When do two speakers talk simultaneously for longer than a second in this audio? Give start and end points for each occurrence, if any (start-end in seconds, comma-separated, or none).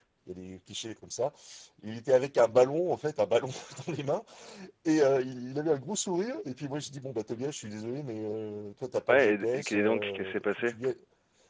9.1-10.8